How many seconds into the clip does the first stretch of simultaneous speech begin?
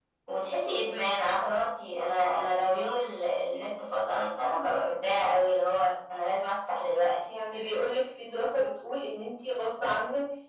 none

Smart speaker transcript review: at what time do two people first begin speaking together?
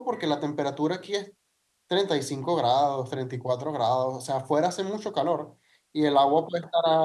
none

